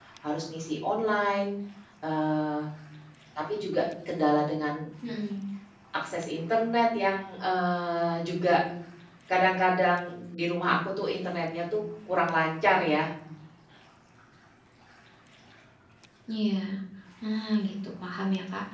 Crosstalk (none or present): none